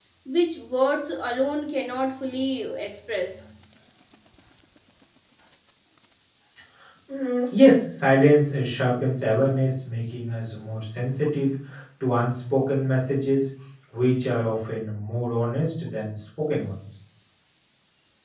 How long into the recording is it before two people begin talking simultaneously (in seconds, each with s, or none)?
none